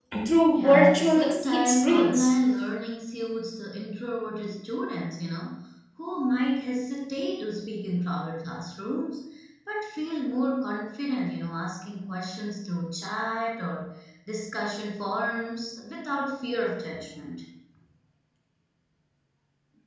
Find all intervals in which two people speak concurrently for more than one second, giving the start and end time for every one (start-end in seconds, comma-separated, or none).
0.6-2.3